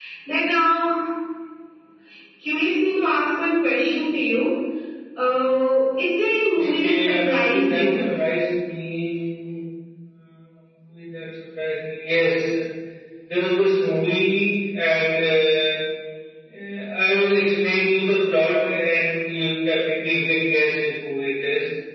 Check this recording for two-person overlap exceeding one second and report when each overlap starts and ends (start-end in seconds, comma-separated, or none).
6.5-8.1